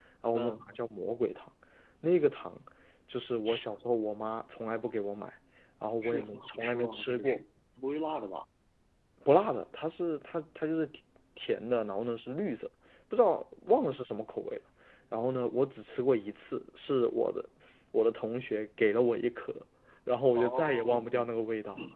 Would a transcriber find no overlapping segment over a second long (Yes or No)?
No